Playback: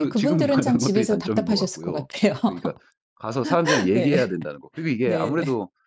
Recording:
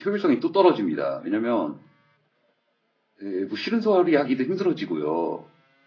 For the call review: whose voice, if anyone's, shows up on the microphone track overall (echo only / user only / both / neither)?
user only